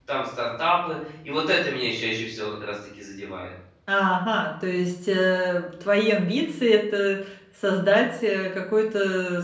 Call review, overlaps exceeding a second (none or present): none